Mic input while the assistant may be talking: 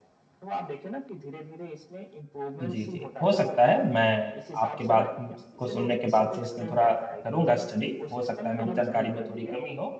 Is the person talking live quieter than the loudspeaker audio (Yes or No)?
No